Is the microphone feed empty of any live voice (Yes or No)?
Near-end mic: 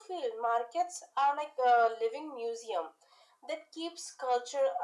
Yes